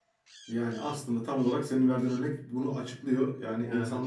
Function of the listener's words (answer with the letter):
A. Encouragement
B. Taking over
A